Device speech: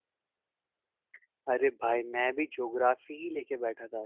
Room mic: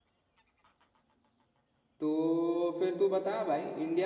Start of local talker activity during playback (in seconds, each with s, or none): 2.0 s